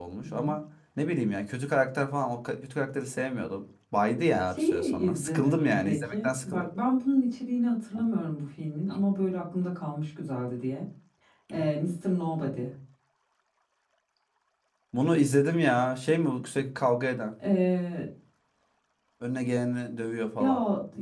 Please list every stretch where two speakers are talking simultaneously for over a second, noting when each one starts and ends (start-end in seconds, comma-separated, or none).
4.5-6.7